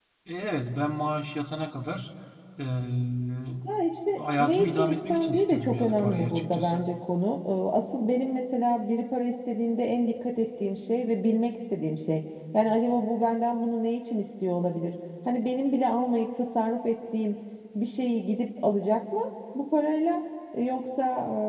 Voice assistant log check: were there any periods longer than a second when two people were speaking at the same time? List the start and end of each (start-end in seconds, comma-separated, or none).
4.2-6.8